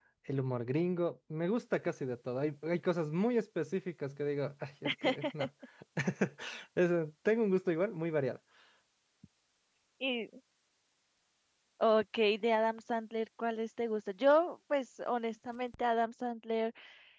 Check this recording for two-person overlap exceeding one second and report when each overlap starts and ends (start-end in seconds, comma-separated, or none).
none